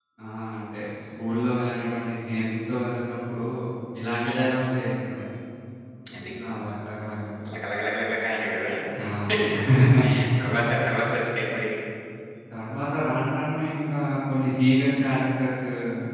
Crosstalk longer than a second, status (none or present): none